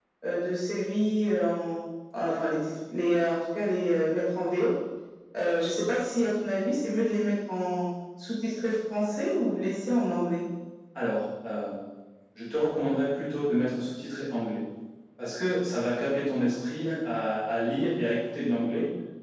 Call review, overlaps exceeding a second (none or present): none